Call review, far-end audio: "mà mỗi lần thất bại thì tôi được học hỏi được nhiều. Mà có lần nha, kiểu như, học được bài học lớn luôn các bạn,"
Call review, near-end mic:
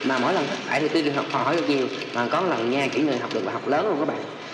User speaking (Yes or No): No